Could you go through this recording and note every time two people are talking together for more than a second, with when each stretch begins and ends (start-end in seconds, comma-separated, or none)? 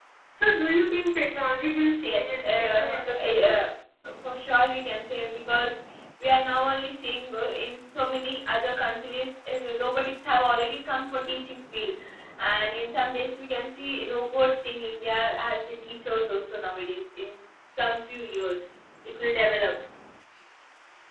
2.0-3.6